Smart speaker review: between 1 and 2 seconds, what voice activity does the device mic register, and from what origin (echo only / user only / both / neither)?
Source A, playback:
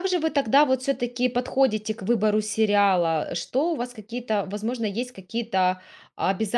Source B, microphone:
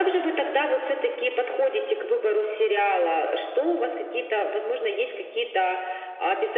echo only